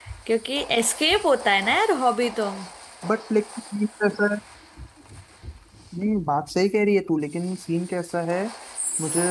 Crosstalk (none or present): none